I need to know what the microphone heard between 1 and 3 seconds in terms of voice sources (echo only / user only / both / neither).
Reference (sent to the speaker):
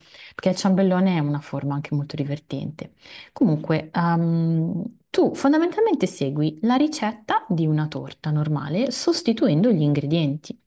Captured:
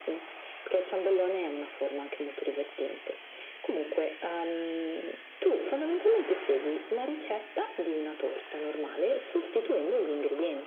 echo only